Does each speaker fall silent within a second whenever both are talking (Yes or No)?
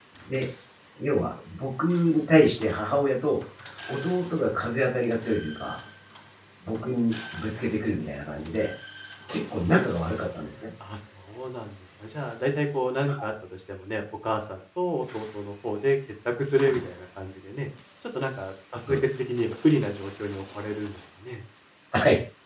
Yes